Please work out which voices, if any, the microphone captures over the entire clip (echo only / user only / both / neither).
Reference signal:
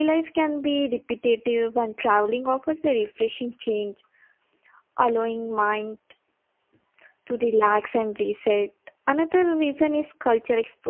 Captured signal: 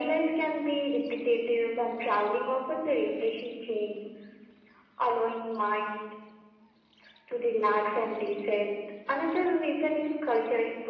echo only